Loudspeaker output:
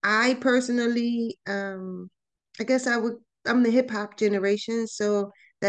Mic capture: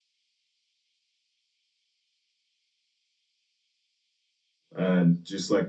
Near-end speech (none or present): present